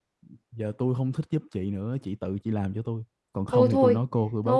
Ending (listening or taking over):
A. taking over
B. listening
A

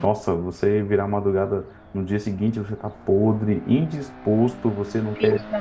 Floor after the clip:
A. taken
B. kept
B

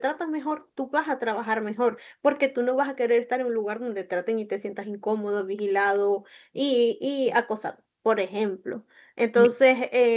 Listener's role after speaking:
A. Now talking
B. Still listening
B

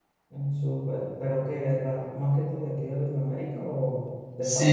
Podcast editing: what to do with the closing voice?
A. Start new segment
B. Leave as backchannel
A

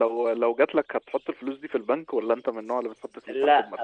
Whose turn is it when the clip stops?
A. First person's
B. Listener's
B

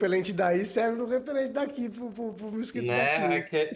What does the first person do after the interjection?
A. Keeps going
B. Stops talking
B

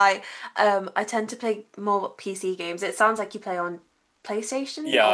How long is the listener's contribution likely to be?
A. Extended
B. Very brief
A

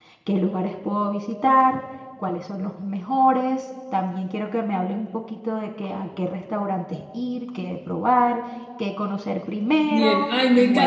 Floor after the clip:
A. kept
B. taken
B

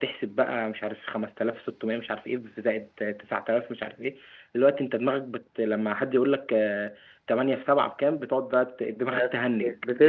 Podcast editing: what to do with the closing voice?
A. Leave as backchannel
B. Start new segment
B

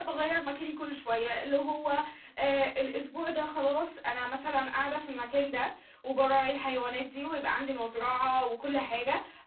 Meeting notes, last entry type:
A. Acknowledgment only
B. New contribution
A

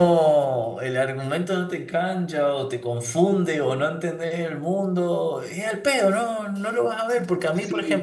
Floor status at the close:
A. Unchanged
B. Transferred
B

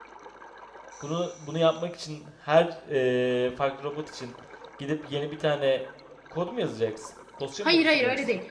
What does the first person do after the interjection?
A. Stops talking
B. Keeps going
A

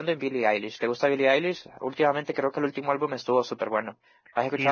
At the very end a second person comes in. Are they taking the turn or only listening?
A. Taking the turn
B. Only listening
A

